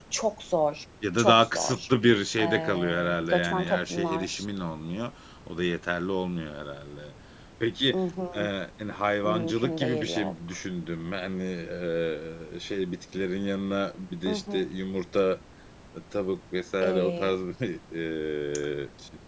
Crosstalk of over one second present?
Yes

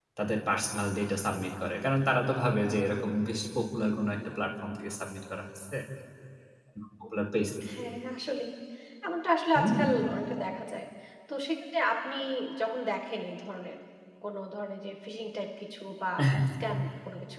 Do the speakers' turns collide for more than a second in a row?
No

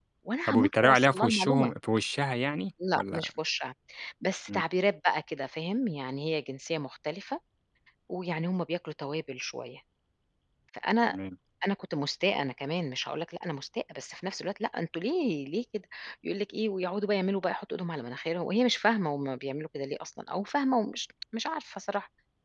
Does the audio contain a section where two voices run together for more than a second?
Yes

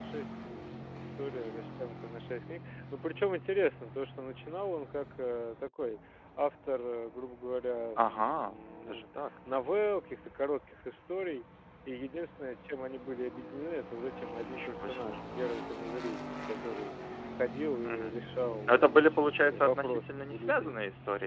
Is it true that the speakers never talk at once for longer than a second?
No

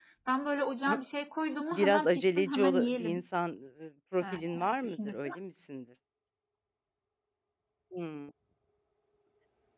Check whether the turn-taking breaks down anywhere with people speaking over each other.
Yes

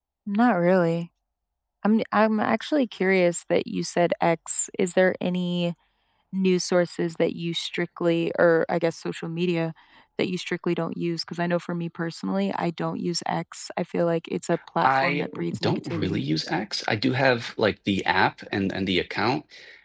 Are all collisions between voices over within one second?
No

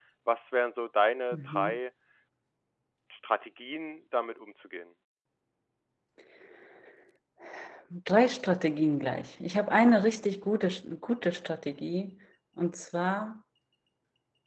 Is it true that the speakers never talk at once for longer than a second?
Yes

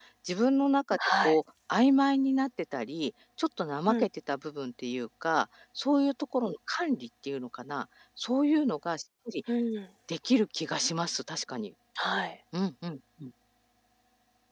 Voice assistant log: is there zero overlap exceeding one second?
Yes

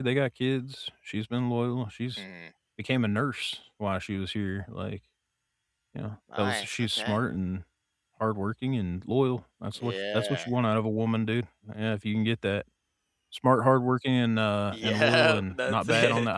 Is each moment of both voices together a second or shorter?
No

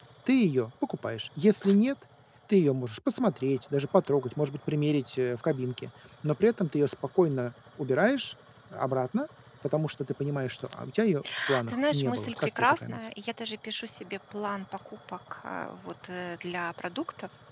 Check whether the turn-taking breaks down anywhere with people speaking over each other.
Yes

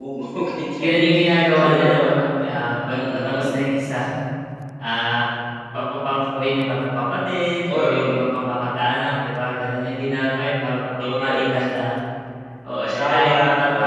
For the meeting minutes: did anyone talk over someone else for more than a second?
Yes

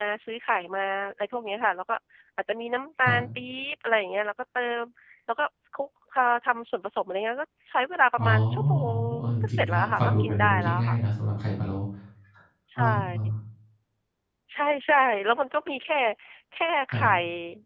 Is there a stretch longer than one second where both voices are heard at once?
Yes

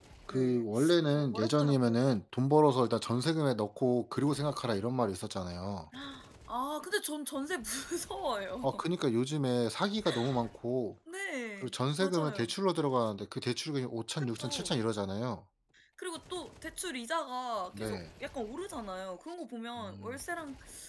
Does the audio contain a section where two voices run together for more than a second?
Yes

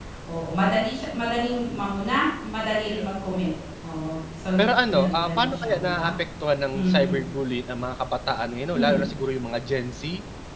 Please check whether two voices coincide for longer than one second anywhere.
Yes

